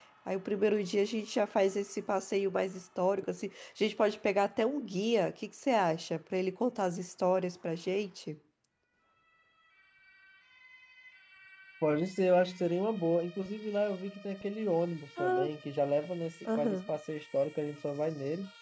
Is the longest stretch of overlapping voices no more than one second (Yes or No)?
Yes